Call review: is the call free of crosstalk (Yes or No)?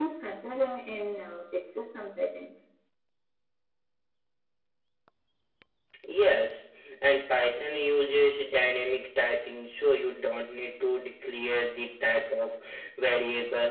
Yes